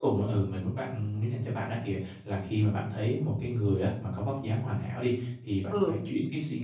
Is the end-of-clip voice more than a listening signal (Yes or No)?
No